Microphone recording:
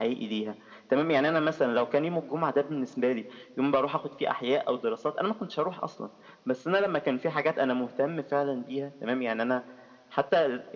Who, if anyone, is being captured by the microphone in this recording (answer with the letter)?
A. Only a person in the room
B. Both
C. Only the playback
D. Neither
C